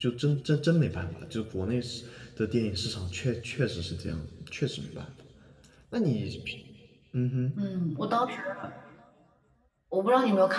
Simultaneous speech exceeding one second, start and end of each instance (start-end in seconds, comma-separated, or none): none